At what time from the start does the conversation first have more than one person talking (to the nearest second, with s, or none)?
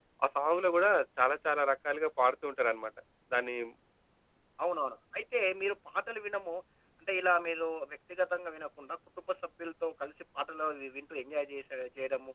none